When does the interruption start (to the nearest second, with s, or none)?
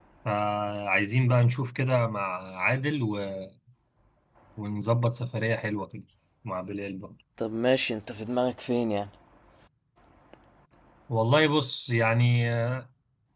none